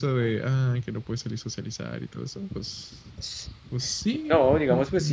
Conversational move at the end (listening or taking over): taking over